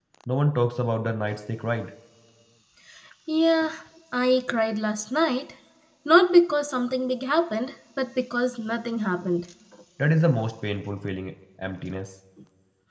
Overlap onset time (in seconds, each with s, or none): none